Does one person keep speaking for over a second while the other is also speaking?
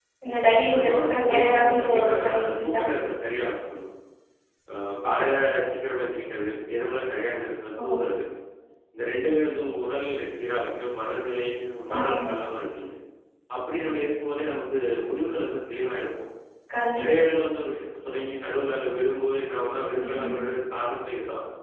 Yes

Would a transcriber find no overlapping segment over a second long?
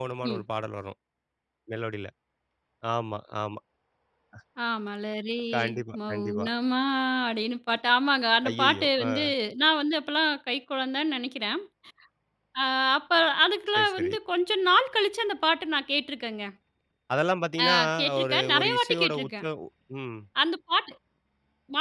No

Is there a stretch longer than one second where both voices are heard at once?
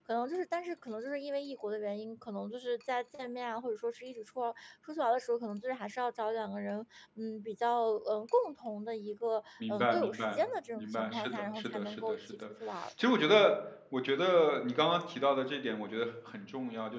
Yes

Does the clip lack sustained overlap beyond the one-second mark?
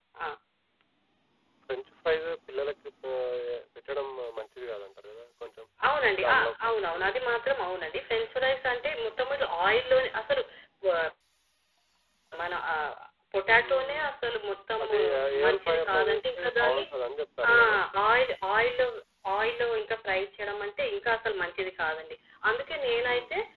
No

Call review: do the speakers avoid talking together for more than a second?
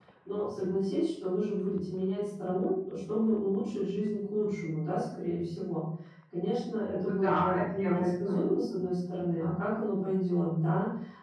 No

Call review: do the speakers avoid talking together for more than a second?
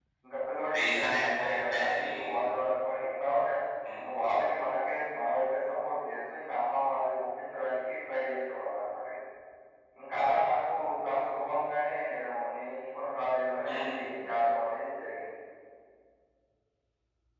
No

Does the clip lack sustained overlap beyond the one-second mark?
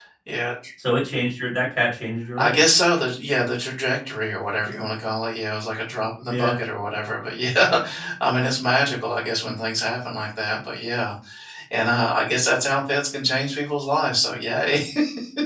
Yes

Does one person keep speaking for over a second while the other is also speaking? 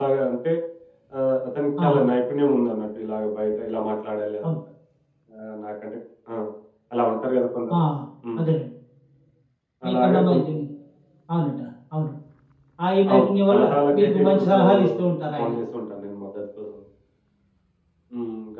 Yes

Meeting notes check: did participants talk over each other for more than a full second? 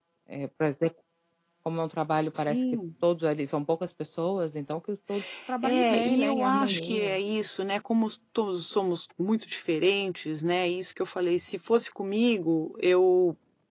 Yes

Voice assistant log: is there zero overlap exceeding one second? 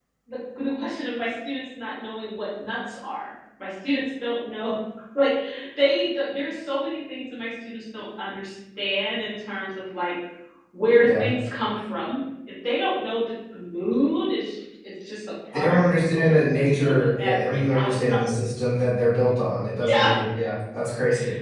No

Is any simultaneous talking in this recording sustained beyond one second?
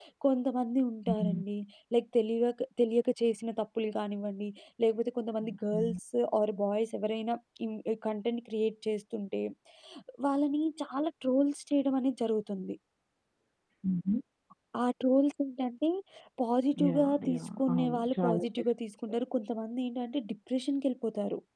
Yes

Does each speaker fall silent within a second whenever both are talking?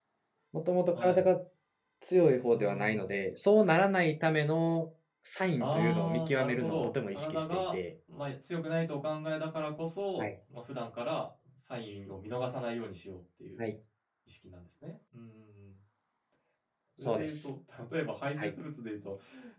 No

